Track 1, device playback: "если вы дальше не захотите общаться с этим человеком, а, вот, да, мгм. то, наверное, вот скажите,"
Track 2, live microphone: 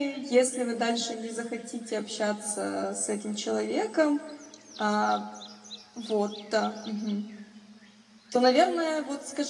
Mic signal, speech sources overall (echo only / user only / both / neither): echo only